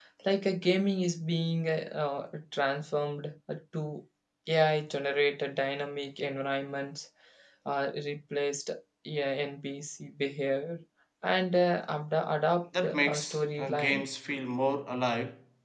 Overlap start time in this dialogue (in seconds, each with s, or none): 12.7 s